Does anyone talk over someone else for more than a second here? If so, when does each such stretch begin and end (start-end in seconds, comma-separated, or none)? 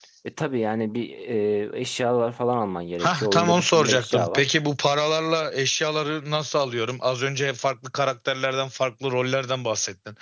3.0-4.4